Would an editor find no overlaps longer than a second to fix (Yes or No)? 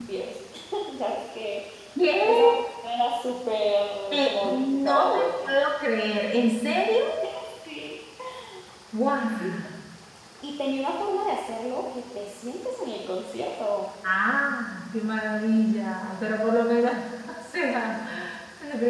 No